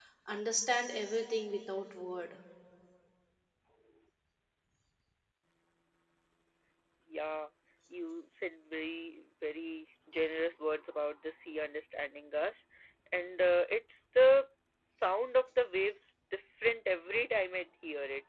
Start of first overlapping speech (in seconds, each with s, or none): none